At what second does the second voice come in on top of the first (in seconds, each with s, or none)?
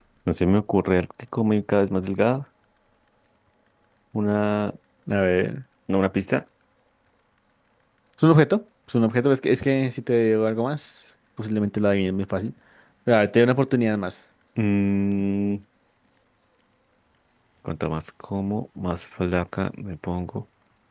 none